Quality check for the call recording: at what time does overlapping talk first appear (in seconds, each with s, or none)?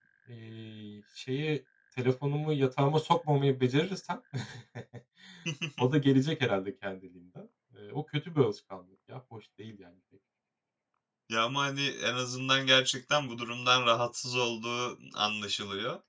none